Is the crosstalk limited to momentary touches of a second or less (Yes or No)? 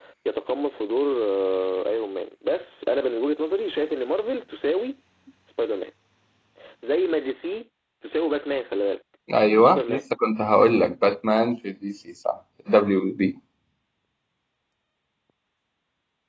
Yes